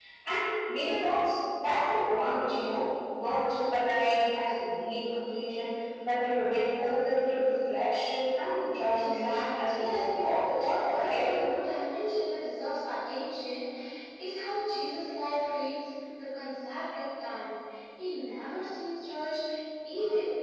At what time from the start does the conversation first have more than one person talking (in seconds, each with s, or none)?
9.0 s